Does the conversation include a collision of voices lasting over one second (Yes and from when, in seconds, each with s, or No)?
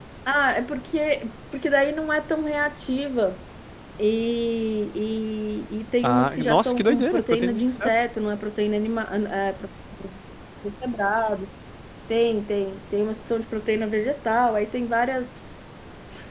Yes, from 6.0 s